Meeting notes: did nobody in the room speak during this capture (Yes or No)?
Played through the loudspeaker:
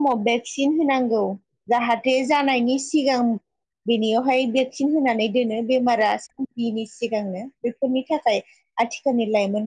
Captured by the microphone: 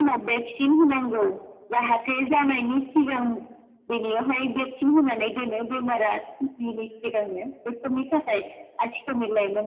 Yes